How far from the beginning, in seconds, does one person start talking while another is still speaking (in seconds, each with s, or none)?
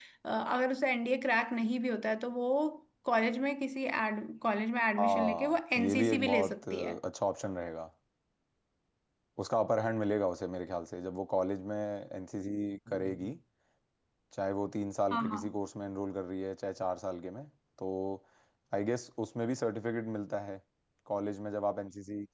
5.0 s